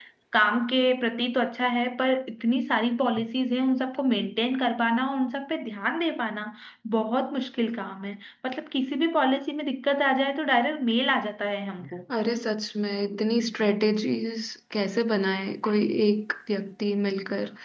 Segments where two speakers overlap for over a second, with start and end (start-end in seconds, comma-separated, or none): none